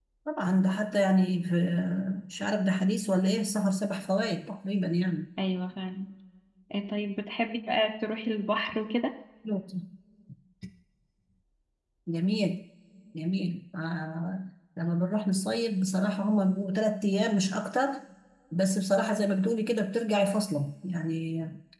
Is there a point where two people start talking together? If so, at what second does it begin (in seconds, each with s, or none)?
none